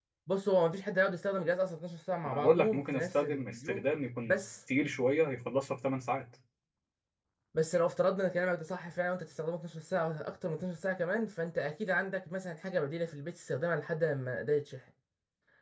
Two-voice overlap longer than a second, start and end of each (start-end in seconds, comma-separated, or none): 2.2-3.8